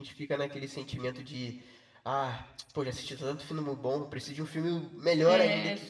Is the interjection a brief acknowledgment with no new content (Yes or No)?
No